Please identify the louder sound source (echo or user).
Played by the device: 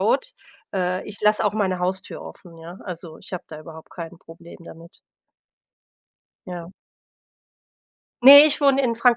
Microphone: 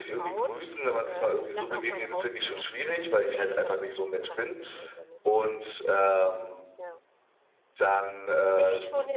user